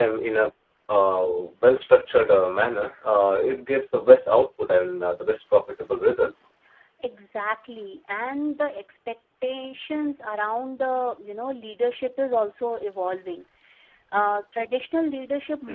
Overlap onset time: none

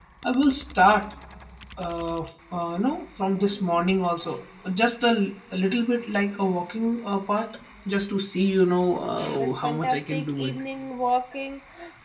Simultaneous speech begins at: 9.4 s

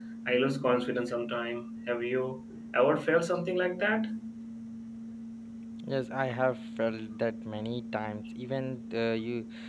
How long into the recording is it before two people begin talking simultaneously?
none

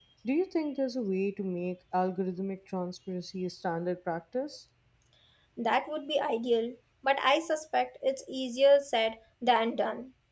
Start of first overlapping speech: none

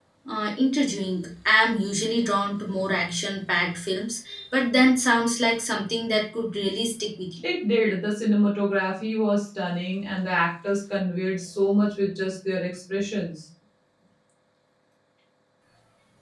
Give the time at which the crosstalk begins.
none

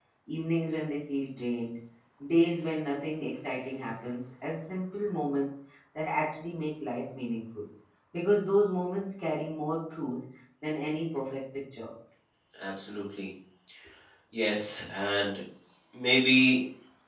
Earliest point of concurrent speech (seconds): none

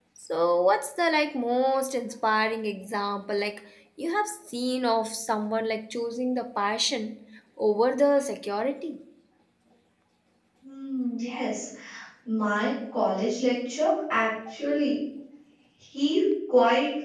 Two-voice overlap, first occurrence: none

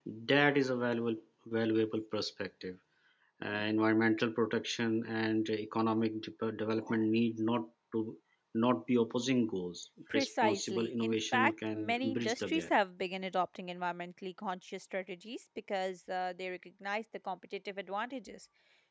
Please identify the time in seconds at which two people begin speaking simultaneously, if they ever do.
10.1 s

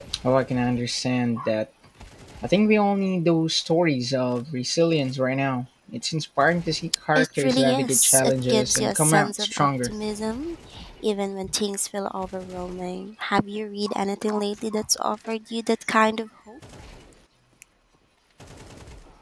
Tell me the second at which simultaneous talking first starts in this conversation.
7.2 s

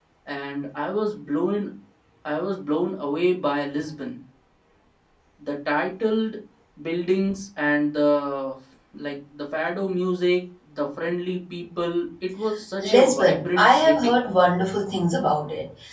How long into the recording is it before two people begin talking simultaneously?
12.8 s

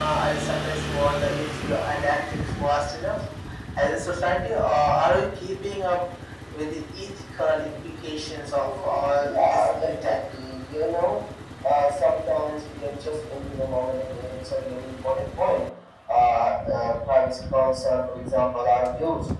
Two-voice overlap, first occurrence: 8.5 s

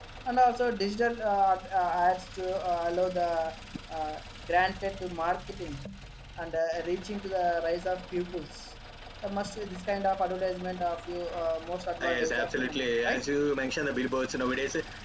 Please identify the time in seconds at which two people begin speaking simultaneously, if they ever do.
12.0 s

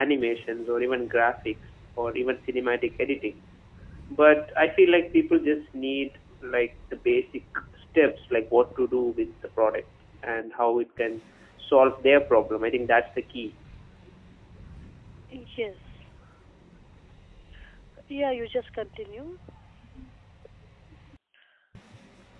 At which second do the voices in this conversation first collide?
none

